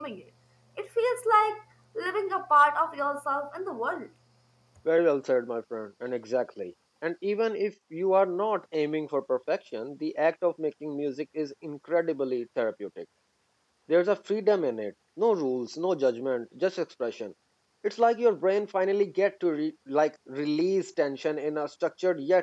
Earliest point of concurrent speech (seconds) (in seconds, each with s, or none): none